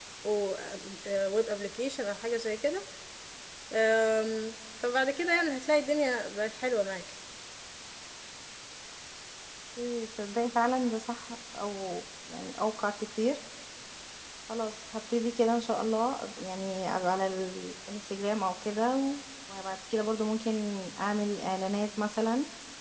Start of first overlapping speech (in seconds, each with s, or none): none